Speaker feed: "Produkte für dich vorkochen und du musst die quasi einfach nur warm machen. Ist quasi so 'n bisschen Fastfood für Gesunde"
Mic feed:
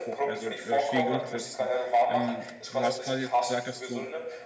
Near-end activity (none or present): present